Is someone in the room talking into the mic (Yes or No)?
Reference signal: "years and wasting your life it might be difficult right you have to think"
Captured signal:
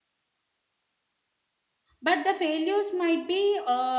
Yes